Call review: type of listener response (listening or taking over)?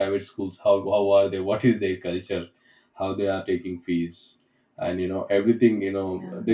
listening